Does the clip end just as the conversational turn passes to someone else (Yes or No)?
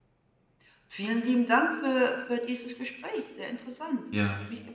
Yes